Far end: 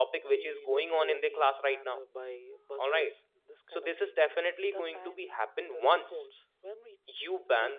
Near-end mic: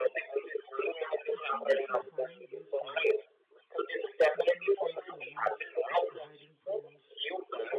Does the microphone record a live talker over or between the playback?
Yes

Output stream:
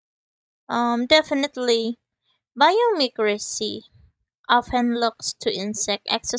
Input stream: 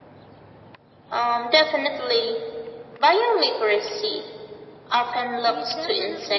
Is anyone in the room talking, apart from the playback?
Yes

